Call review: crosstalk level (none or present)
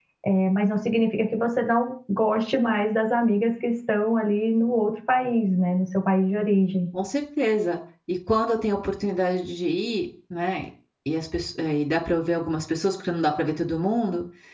none